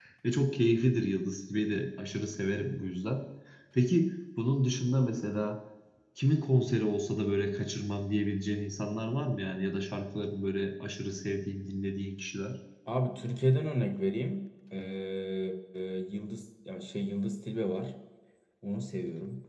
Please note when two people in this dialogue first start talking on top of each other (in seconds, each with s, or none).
none